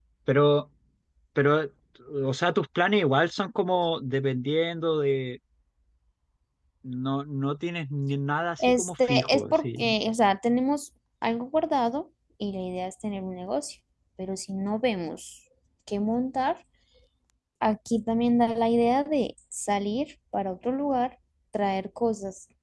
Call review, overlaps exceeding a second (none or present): present